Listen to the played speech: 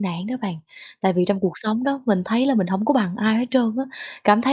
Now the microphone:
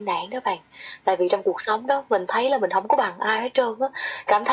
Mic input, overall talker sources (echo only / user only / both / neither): echo only